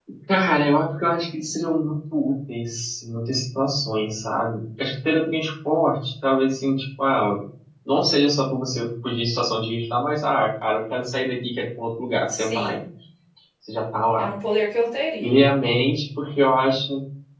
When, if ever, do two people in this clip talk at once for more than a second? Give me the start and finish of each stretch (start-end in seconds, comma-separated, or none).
none